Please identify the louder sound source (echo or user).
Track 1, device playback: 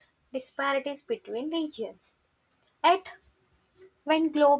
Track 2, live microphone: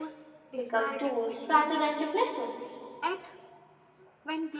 user